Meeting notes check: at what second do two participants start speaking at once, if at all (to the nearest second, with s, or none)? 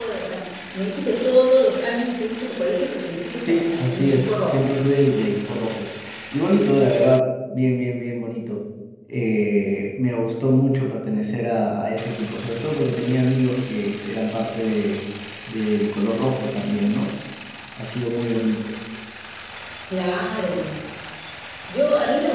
3 s